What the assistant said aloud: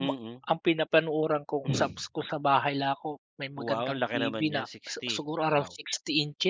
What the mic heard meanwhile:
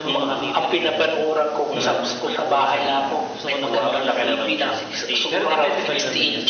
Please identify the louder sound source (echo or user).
echo